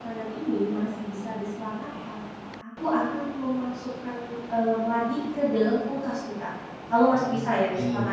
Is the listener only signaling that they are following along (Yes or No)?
Yes